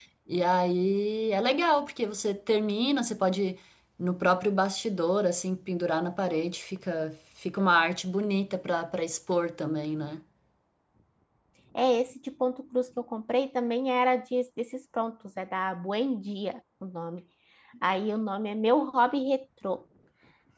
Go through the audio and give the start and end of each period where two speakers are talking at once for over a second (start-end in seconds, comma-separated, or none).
none